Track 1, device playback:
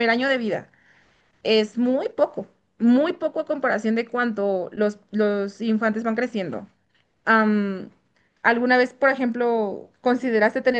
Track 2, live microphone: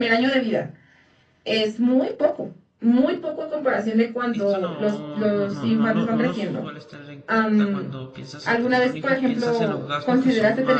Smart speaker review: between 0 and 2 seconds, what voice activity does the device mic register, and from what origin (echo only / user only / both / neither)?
echo only